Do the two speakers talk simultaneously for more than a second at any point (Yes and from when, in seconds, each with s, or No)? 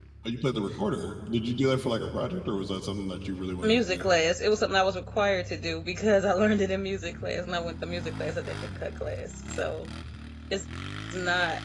No